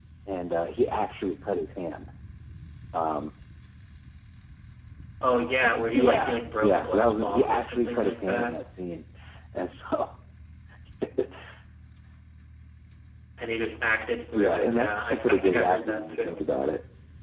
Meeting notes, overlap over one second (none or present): present